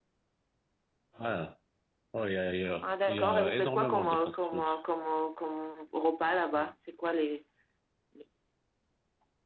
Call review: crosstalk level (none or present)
present